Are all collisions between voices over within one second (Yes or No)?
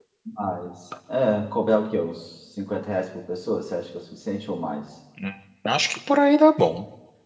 Yes